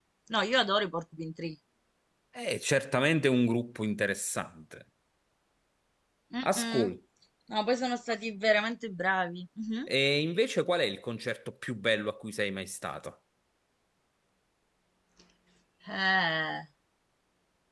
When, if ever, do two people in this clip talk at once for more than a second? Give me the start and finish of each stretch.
none

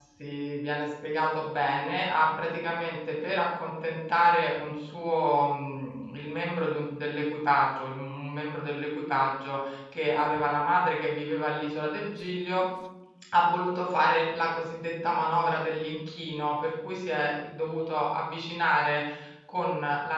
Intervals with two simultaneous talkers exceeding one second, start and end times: none

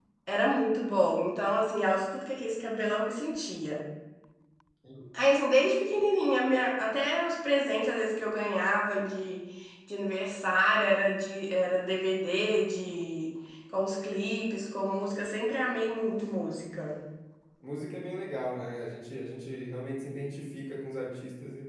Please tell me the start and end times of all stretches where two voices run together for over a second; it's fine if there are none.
none

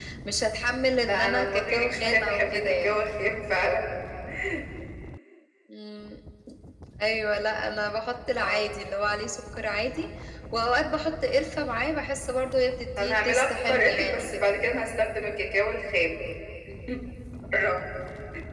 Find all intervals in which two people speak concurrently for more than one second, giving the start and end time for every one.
1.1-3.0, 13.0-14.4

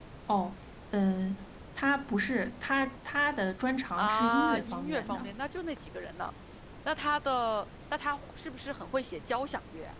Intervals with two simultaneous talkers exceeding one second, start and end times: 4.0-5.3

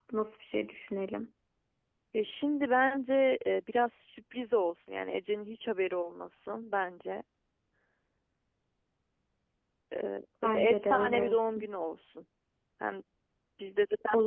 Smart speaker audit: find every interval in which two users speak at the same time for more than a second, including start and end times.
10.4-11.7

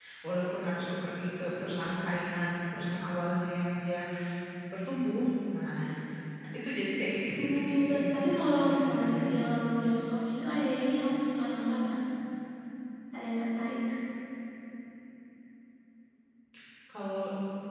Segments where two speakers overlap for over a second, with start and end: 7.4-9.2

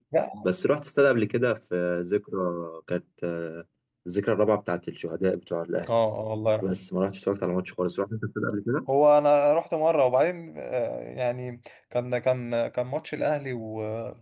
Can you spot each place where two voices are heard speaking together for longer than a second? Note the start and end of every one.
none

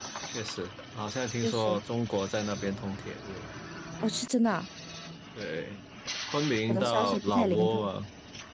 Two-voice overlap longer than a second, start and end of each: 6.7-7.9

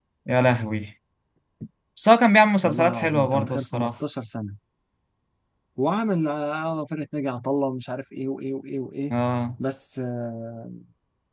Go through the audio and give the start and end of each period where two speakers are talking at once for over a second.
2.6-3.9

